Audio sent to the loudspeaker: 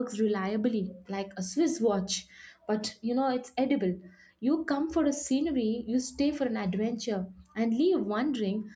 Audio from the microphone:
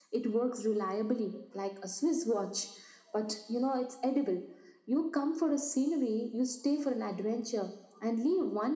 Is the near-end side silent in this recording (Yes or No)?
Yes